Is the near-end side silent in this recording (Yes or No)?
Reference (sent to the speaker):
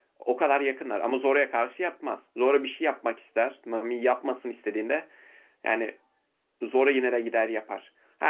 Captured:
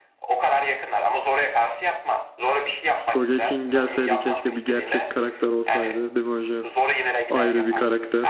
No